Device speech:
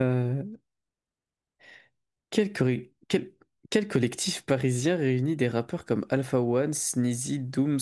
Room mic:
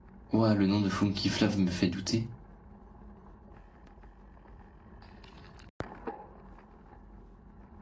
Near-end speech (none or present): present